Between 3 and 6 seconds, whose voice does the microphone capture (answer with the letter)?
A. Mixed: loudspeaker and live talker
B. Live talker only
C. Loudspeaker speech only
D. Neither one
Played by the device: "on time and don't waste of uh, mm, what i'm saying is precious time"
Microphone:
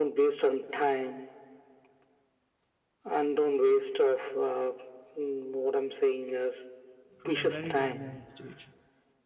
C